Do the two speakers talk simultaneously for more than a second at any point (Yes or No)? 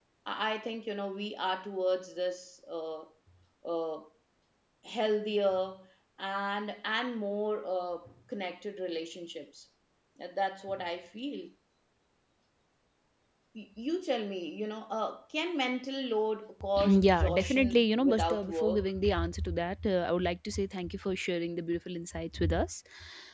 Yes